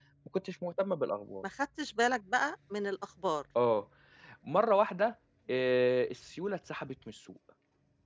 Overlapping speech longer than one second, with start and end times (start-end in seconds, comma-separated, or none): none